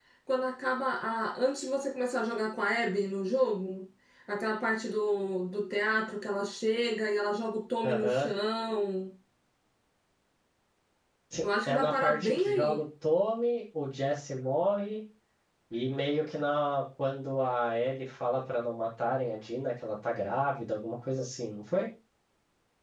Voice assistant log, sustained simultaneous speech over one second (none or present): present